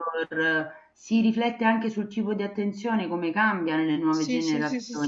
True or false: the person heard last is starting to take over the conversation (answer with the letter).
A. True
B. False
A